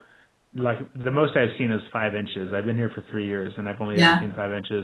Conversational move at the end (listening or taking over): listening